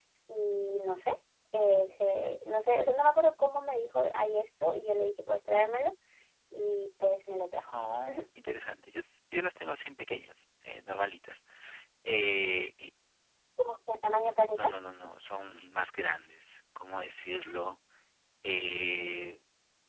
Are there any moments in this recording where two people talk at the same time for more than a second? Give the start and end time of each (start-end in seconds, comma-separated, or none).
none